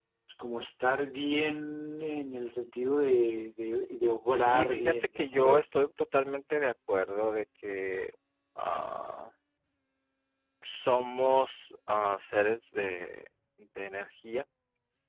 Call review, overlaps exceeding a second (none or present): present